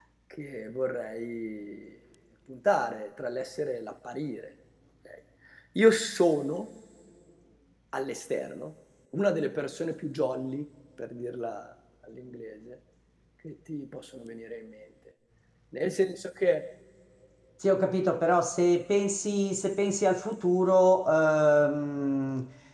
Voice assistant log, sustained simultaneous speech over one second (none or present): none